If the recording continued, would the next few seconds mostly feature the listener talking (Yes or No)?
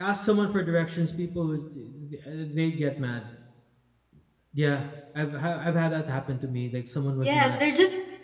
Yes